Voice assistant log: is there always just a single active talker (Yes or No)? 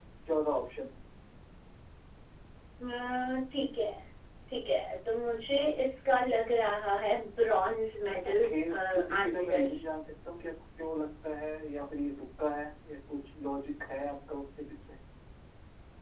No